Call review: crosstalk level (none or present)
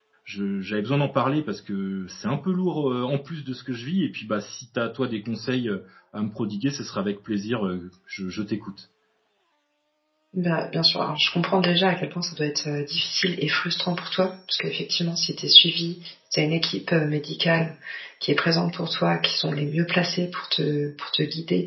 none